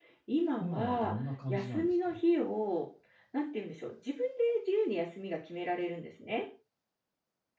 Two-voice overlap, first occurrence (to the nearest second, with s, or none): 1 s